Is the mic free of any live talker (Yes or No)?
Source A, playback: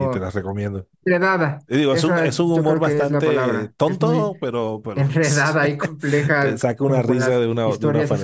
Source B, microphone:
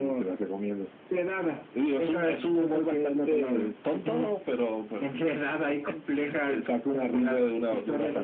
Yes